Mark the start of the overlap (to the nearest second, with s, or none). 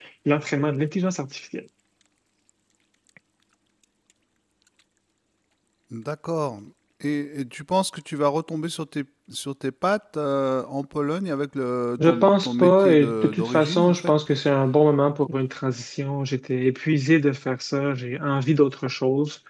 12 s